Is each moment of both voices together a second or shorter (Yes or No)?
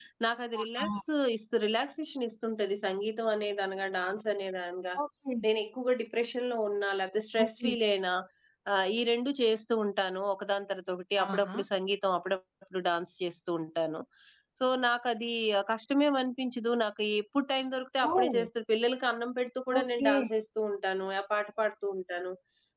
Yes